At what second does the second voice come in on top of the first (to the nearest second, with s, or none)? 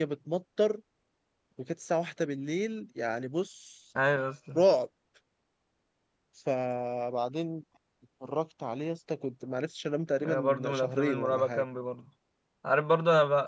10 s